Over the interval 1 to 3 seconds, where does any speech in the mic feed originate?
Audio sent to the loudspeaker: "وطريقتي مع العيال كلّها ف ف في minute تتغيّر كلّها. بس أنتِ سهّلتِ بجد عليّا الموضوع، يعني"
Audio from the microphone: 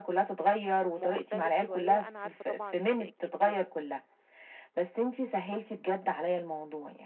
both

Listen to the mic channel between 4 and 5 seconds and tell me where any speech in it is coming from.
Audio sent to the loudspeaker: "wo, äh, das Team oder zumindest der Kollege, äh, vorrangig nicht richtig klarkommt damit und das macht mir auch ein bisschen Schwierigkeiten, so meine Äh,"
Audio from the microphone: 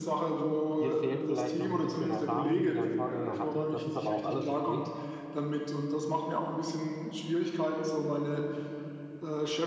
both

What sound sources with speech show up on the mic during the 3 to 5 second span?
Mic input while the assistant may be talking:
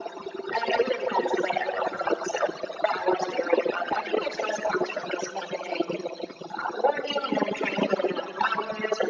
echo only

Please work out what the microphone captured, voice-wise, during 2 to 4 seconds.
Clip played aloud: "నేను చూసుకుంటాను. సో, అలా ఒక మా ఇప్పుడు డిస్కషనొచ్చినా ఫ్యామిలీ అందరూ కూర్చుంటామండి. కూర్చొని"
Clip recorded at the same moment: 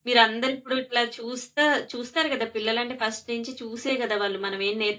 user only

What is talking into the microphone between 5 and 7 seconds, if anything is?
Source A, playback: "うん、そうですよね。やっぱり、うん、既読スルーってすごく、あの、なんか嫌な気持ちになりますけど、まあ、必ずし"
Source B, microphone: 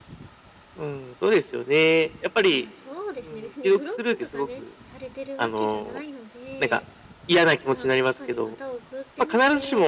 both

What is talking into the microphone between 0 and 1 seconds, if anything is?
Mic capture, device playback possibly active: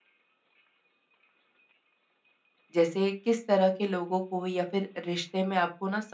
neither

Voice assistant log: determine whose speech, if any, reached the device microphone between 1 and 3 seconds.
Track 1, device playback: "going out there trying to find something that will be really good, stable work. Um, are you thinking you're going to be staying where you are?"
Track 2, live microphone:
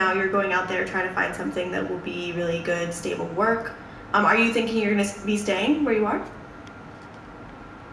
echo only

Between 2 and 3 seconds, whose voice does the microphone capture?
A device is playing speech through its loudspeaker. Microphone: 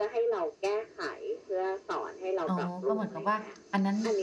both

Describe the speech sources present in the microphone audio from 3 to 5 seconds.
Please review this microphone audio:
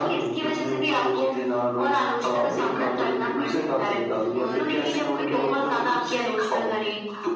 both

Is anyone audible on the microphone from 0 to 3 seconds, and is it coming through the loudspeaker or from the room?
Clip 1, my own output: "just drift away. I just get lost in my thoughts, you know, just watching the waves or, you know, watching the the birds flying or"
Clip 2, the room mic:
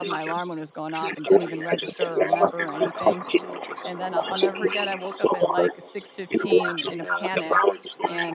both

